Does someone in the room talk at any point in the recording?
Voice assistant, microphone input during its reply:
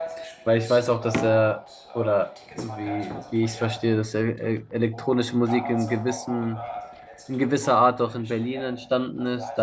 Yes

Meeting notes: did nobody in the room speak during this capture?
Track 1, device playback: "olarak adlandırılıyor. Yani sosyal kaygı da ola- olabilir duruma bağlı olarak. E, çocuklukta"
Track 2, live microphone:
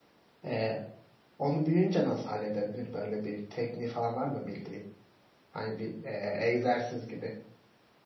No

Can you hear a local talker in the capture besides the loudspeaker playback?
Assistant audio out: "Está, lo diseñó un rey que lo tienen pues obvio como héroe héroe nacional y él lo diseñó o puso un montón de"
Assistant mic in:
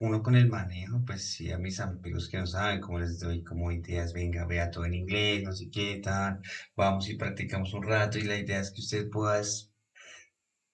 Yes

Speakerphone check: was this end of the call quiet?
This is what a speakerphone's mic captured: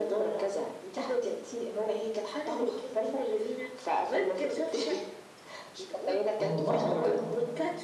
No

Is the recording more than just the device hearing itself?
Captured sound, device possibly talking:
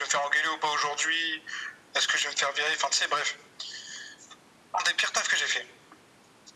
No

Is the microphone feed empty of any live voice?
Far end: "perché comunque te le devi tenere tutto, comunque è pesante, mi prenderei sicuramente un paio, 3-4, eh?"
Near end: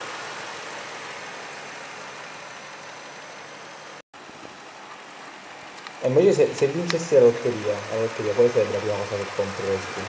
No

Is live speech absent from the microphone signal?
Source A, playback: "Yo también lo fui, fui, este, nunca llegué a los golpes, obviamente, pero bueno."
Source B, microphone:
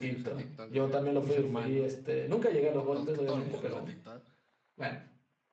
No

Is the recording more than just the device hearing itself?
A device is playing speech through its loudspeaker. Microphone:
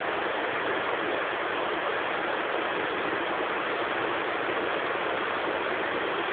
No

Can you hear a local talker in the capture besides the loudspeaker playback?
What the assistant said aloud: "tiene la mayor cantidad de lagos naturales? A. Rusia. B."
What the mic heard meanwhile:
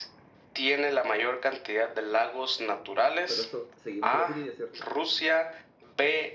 Yes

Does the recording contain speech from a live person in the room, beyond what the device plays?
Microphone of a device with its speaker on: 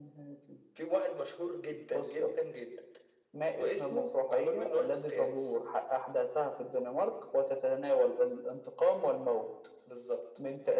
No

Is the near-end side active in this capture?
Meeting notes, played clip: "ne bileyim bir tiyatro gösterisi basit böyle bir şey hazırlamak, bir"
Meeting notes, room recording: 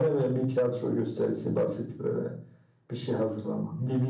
No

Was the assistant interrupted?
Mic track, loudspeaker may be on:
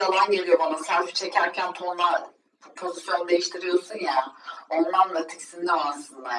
No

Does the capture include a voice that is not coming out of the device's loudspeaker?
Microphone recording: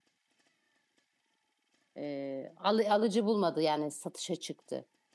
Yes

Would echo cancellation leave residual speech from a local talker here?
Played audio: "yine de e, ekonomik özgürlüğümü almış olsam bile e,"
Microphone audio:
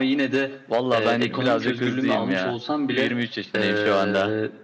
Yes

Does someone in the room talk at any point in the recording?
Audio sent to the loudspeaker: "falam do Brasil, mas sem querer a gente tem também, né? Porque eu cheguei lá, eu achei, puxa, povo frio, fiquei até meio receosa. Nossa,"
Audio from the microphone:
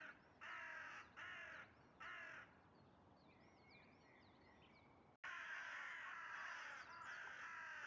No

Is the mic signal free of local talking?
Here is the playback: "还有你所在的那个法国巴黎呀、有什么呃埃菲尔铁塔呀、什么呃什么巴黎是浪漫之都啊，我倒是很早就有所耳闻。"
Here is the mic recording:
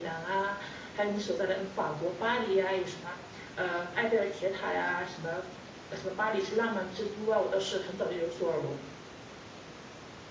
Yes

